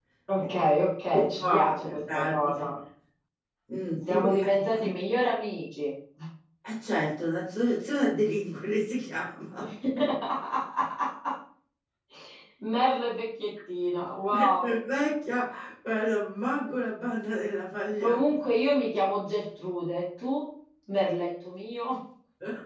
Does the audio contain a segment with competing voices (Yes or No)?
Yes